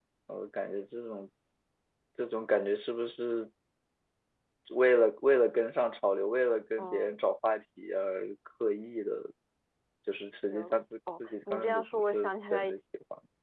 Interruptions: present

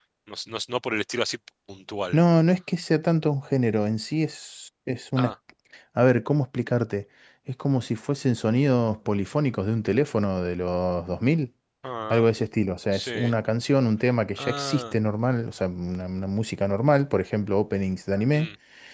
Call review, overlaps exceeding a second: none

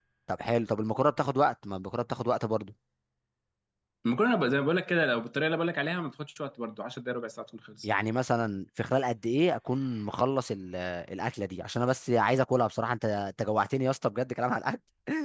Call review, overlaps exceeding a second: none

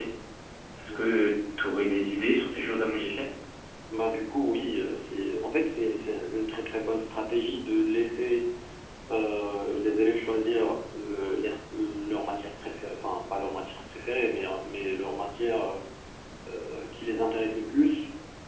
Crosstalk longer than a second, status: none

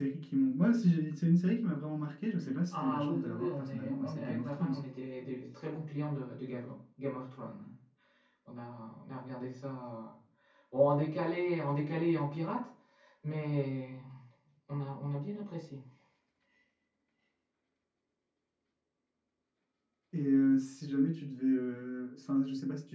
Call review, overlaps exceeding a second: present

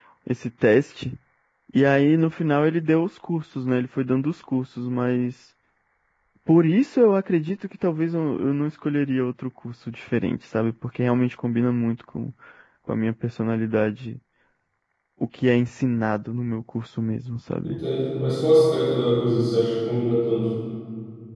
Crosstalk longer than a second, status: none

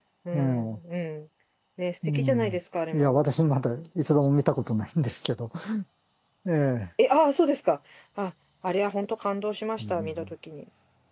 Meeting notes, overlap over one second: none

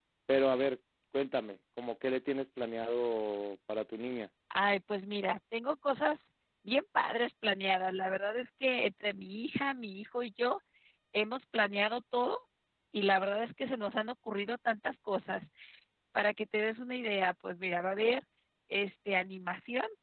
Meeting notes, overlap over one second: none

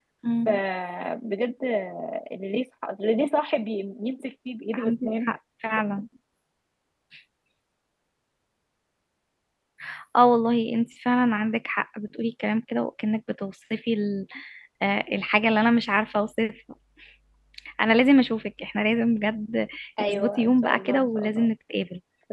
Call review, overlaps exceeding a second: present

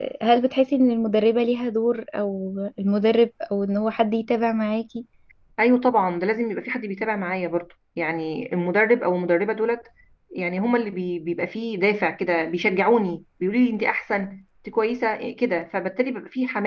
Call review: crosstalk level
none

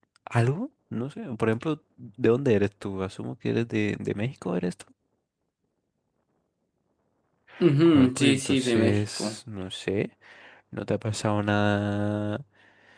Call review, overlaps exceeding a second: present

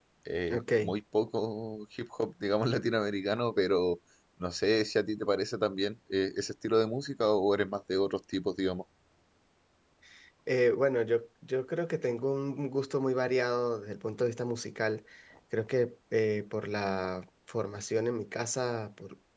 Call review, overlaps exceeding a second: none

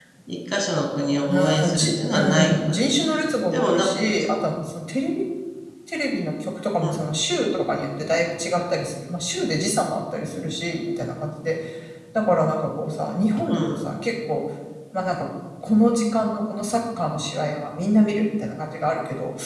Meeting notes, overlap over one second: present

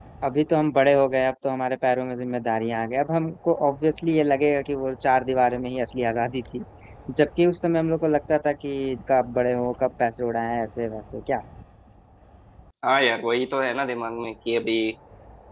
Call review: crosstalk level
none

